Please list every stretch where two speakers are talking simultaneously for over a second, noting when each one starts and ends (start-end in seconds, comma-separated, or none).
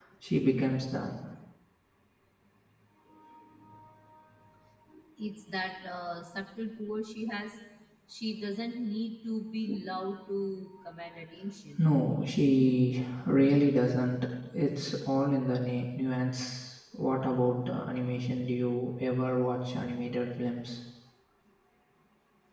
none